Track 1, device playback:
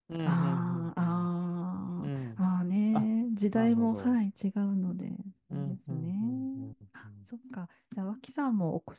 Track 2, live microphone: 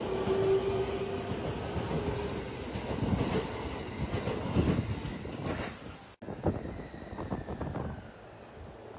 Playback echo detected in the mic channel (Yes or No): No